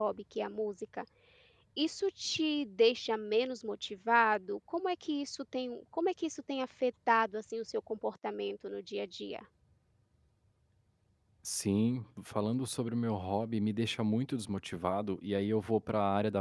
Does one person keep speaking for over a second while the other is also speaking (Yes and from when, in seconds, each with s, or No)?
No